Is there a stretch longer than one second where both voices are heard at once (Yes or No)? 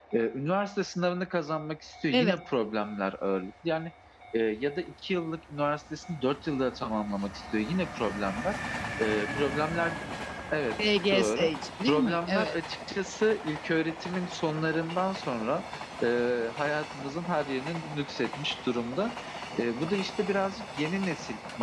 Yes